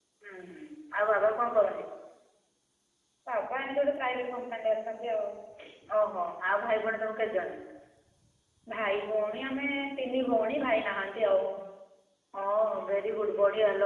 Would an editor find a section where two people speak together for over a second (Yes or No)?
No